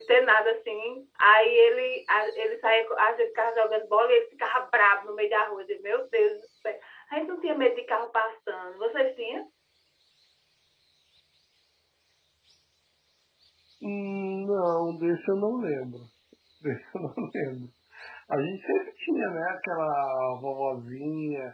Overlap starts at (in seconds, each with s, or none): none